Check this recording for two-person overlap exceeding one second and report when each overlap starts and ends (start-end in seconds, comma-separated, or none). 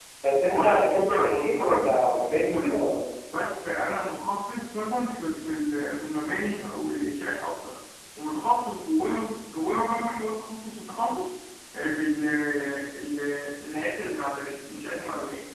0.5-2.8